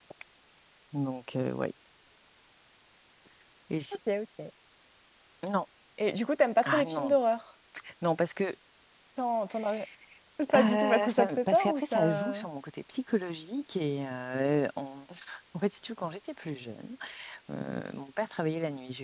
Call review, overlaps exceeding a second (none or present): present